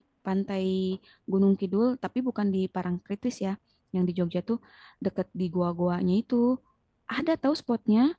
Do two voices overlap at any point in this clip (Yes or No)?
No